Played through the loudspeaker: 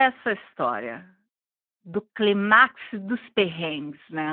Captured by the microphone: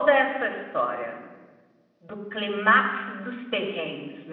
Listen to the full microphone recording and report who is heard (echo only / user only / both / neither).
echo only